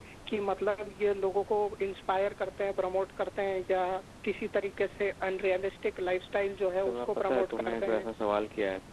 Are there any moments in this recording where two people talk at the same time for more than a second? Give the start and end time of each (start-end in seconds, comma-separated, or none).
6.8-8.1